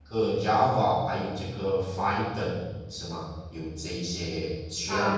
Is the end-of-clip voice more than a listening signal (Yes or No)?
Yes